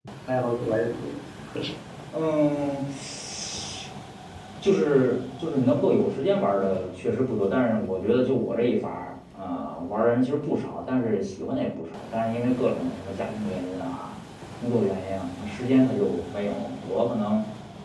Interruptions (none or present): none